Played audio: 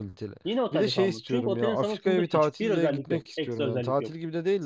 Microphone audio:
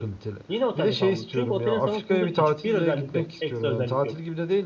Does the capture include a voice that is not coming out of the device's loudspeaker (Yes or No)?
No